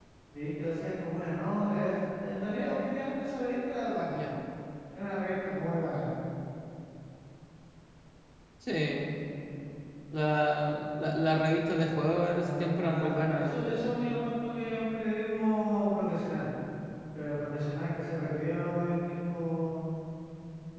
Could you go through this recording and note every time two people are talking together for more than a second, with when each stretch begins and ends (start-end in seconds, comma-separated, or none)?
12.4-13.7